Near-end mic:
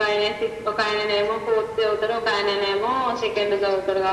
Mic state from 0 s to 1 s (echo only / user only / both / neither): echo only